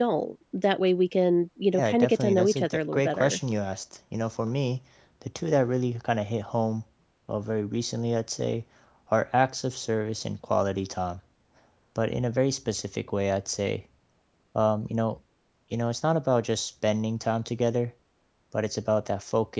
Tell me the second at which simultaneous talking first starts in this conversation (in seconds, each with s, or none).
1.7 s